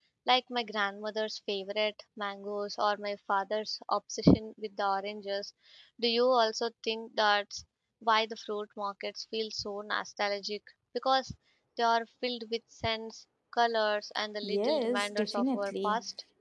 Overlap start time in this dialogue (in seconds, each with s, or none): 14.4 s